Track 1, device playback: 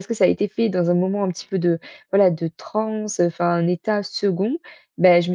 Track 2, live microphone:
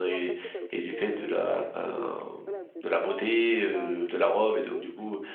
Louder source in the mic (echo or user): user